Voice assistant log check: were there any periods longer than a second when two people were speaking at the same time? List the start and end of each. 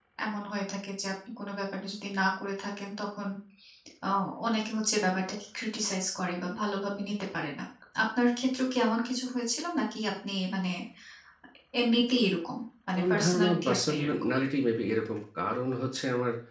12.9-14.3

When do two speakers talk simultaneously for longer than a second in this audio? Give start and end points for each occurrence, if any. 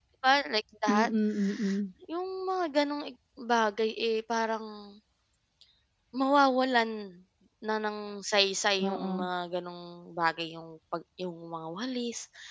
none

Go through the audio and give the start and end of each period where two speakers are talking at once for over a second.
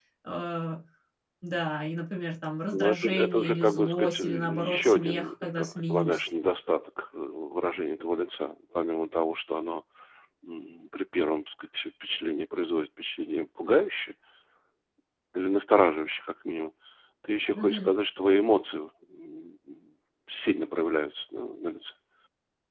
2.7-6.3

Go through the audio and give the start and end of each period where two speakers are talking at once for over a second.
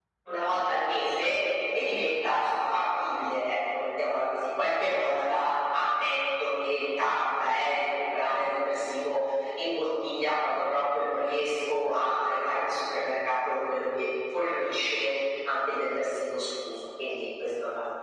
none

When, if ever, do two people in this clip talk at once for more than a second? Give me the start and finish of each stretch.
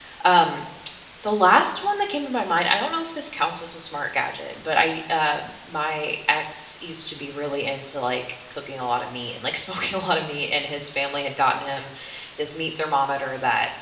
none

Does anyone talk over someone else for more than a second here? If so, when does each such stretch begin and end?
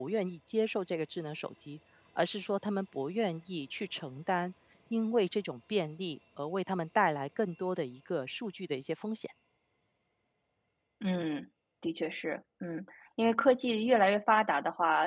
none

